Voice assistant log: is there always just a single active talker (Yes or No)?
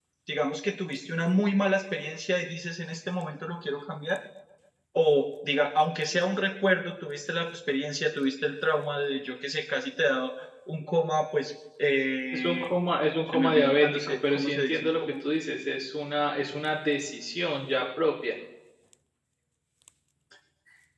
No